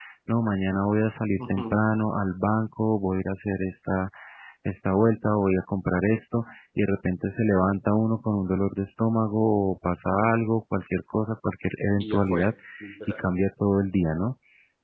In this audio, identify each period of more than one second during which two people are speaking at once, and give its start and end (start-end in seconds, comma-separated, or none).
none